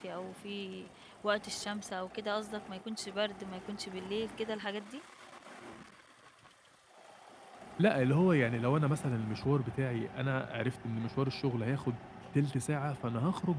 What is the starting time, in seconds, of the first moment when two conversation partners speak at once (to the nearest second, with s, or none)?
none